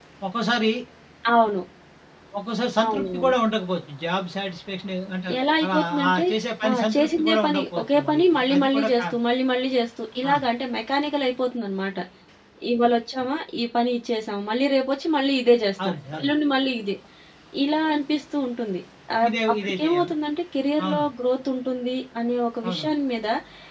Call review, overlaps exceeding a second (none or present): present